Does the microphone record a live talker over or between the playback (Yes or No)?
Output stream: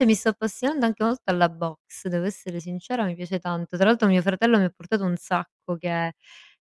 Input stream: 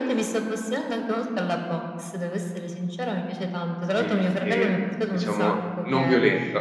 Yes